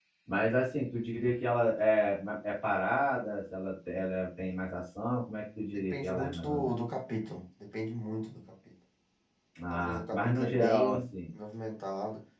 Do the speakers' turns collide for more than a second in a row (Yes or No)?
Yes